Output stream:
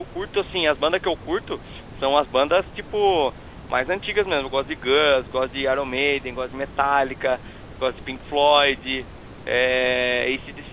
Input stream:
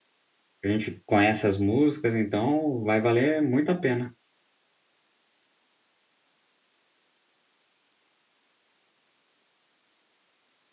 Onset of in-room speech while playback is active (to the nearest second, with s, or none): 1 s